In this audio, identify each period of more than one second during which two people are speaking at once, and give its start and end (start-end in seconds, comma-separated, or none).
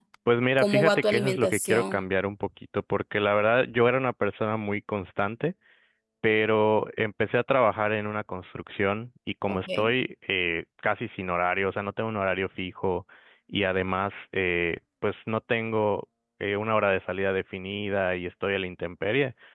0.6-2.0